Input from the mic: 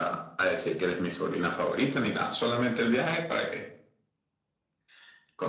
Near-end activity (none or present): none